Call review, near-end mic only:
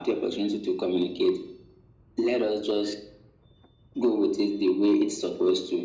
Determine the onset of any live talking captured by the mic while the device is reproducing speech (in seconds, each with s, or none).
none